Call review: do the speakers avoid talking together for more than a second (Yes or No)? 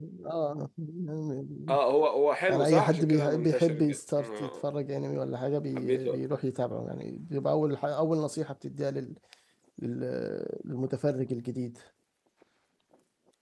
No